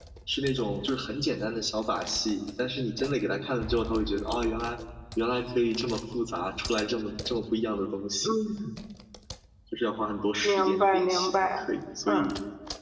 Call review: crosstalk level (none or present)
present